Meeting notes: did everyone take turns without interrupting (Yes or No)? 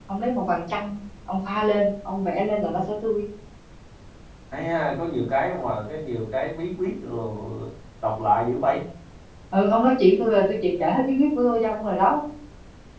Yes